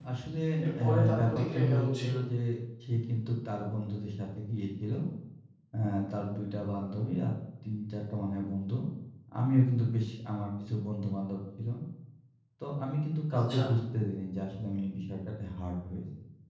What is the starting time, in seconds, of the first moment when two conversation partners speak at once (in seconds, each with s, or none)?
0.8 s